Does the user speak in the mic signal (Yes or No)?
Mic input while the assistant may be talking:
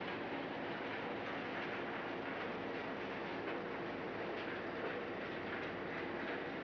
No